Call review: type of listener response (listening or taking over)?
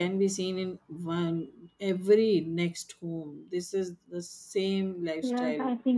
taking over